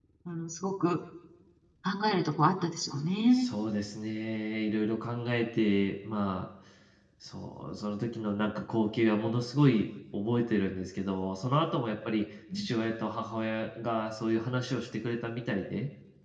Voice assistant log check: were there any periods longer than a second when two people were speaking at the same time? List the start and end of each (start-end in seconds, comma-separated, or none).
none